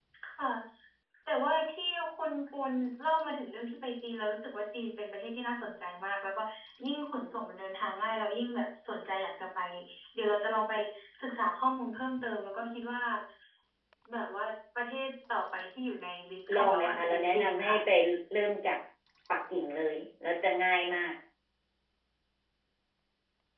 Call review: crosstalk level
present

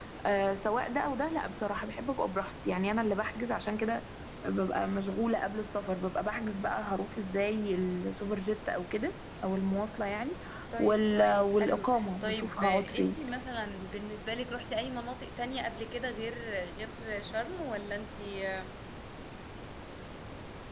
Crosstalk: present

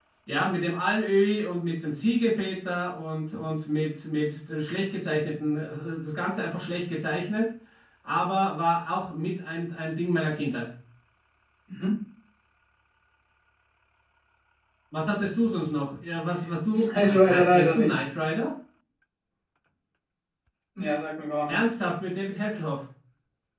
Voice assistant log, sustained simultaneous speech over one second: present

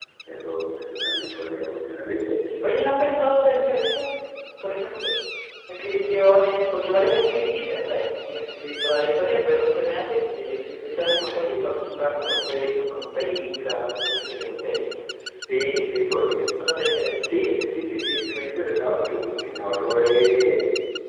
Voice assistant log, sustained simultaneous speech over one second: none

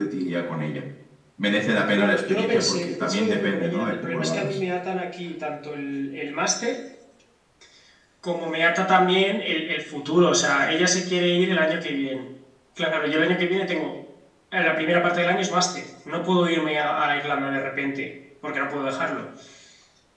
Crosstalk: present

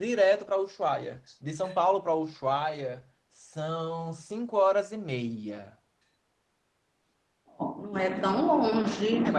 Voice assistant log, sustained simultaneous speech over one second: none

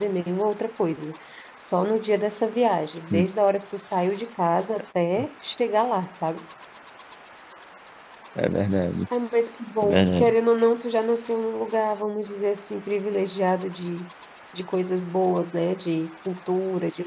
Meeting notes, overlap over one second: none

